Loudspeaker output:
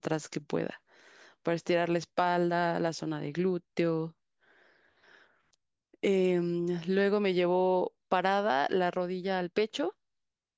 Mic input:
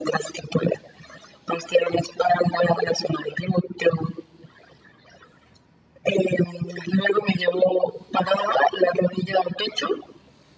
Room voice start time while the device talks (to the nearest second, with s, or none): none